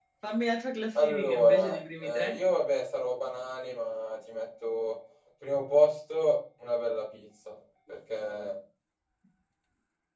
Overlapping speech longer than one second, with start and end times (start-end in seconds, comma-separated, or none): 0.9-2.4